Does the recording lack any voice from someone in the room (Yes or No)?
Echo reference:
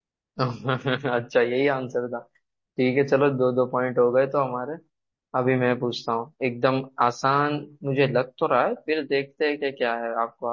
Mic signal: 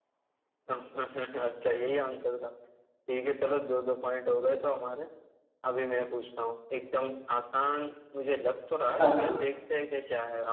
No